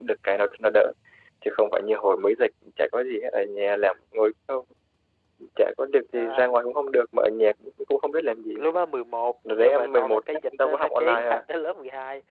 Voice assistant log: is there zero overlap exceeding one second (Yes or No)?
No